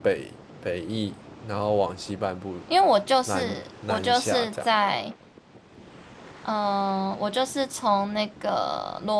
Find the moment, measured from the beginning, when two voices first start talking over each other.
3.3 s

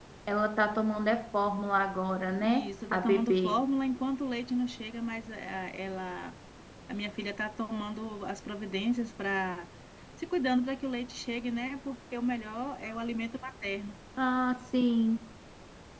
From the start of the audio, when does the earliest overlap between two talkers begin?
2.4 s

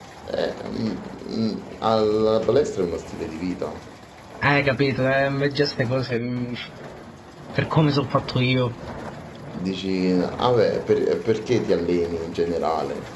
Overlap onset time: none

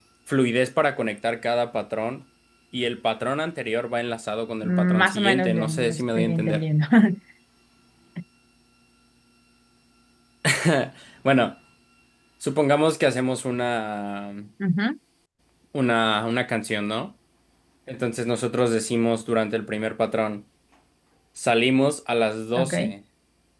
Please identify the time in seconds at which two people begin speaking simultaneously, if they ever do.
4.6 s

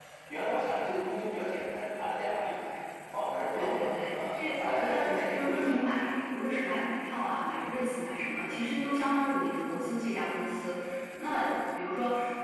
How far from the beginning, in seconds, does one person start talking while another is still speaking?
3.5 s

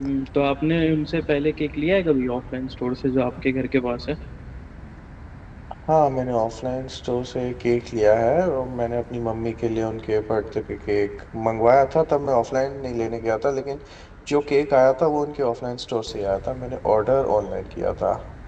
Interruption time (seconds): none

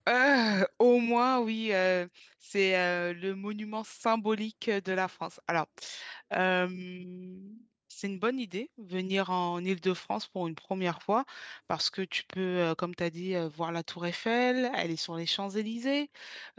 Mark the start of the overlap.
none

